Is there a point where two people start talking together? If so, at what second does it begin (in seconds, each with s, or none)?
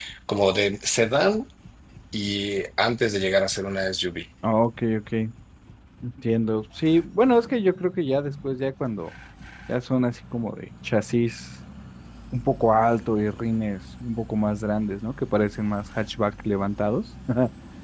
none